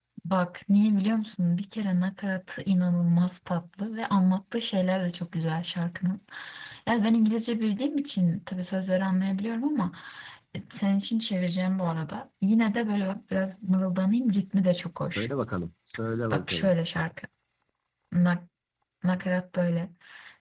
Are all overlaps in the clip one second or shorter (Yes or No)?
Yes